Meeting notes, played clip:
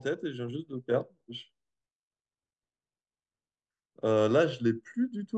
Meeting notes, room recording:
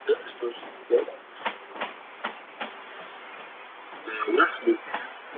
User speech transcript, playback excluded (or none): none